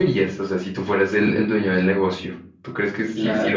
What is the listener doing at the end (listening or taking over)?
listening